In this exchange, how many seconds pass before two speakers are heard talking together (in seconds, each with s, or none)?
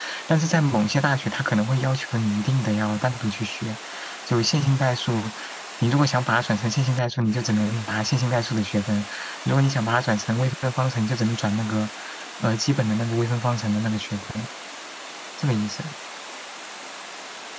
none